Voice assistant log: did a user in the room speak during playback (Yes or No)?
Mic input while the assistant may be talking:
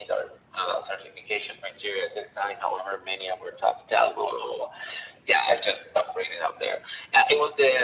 No